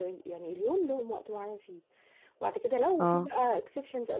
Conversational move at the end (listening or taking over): listening